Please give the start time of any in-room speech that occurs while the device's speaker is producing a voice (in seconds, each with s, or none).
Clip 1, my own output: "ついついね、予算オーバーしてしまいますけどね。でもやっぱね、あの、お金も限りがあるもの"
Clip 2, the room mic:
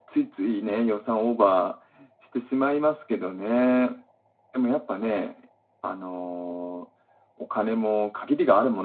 none